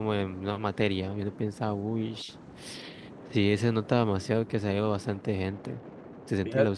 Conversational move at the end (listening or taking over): taking over